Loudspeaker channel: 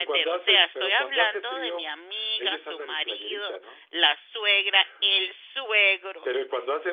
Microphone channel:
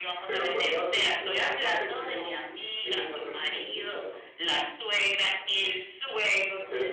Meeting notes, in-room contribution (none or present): none